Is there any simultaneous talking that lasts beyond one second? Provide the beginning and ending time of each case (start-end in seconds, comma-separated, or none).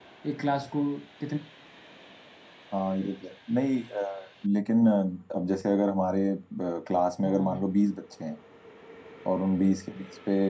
none